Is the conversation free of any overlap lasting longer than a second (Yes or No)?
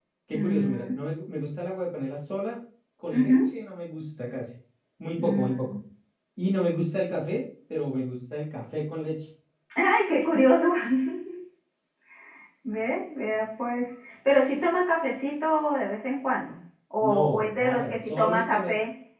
No